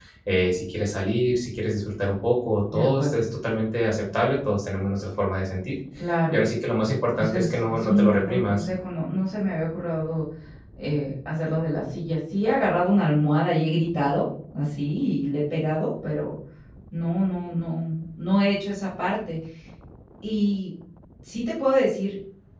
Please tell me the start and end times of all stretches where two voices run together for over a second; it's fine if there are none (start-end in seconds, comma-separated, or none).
7.2-8.7